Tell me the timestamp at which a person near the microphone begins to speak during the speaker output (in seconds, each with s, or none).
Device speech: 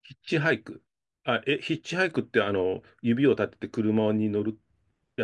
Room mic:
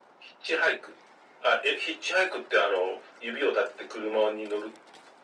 none